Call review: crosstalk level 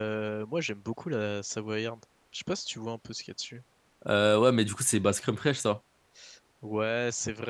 none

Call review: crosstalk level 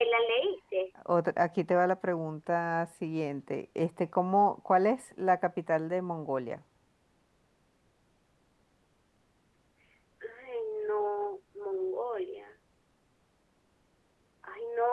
none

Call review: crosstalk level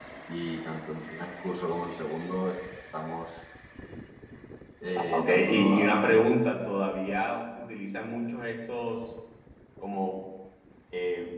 present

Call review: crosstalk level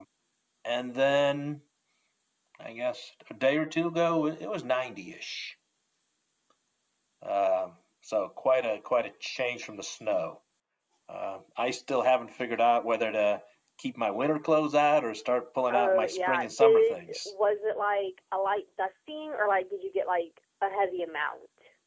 present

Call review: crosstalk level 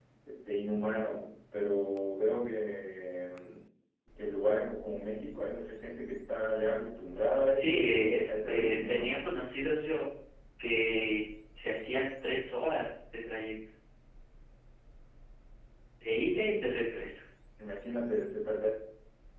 present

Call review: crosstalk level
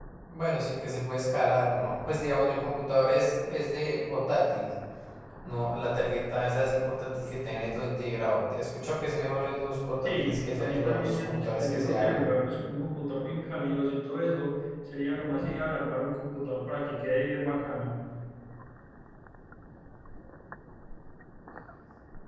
present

